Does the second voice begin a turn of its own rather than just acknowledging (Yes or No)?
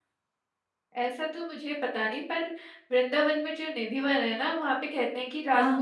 No